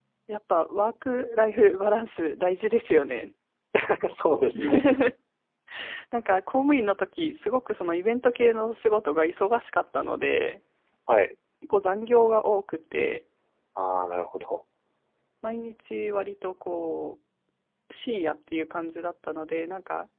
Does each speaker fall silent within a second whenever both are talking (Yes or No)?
Yes